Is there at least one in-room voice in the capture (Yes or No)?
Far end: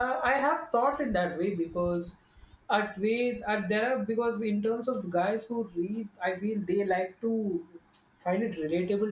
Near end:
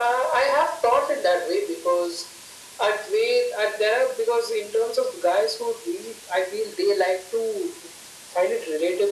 No